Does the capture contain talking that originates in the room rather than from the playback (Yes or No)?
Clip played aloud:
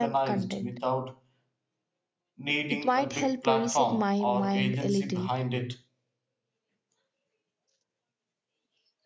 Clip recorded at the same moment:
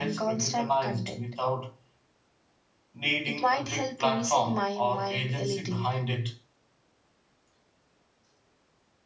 No